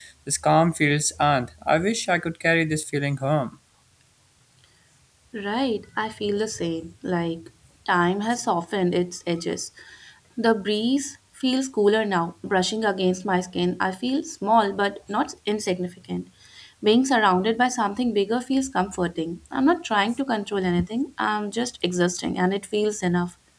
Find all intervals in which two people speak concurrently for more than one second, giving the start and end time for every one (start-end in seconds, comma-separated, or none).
none